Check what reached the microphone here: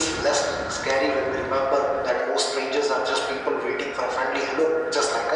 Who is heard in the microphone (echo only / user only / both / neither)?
echo only